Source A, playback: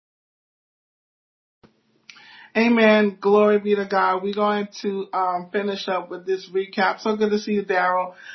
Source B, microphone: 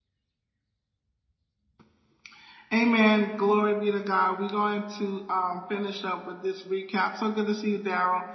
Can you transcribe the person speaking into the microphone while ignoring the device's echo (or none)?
none